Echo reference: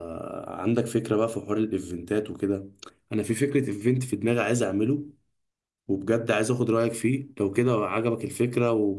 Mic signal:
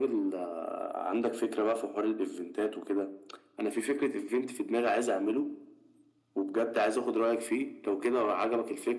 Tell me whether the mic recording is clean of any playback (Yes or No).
No